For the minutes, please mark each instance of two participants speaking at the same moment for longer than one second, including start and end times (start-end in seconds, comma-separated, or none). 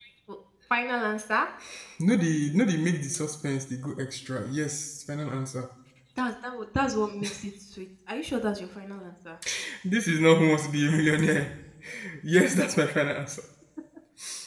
none